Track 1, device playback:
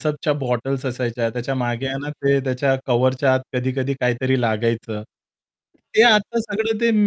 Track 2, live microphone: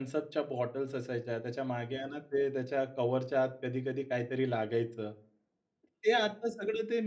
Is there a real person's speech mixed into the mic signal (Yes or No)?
No